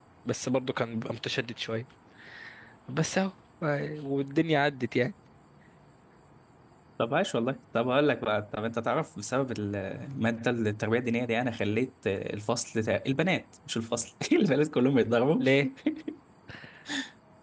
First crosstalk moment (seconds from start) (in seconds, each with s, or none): none